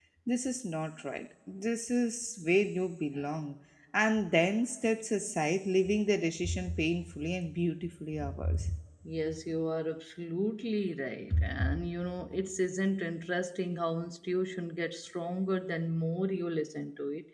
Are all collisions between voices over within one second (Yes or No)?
Yes